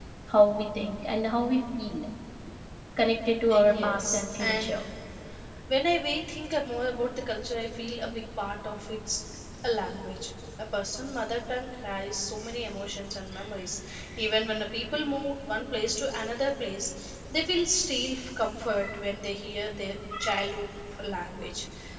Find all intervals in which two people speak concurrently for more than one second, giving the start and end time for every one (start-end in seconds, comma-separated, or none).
3.5-4.8